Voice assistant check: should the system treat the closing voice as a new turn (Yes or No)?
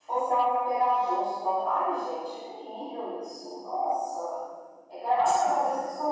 No